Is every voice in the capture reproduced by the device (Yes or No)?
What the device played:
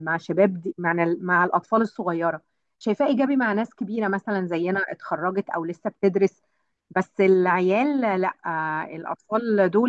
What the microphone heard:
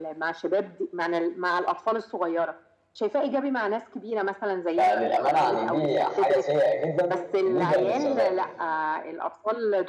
No